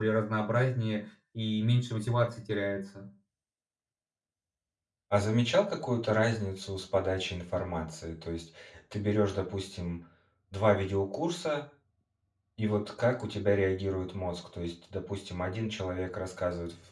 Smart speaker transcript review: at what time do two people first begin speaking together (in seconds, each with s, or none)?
none